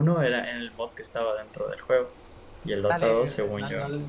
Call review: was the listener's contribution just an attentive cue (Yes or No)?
No